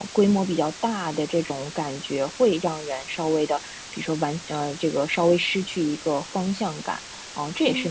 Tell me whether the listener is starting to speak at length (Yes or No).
No